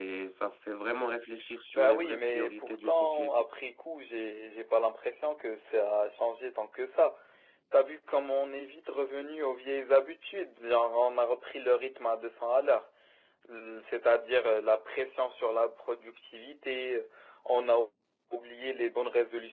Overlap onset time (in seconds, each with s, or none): 1.7 s